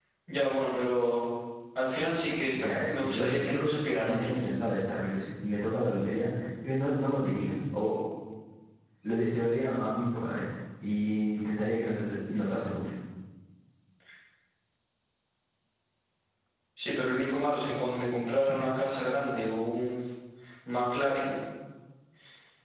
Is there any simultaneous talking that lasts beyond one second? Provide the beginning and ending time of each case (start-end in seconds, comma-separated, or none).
2.5-4.3